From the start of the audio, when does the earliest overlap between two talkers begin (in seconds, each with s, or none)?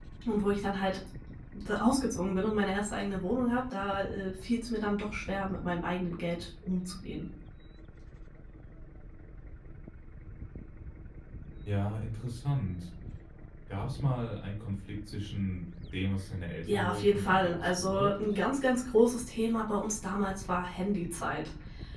16.7 s